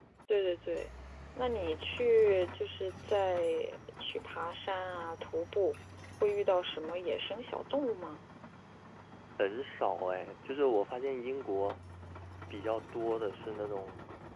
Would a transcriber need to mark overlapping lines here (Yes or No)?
No